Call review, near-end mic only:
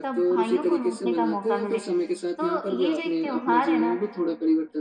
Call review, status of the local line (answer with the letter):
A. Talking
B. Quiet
A